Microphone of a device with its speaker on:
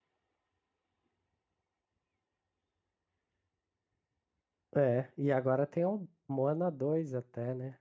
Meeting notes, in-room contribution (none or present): present